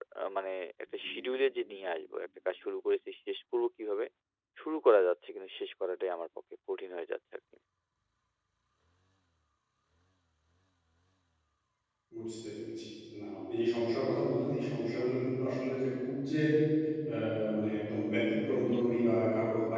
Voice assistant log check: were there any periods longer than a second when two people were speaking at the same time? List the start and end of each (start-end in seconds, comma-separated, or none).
none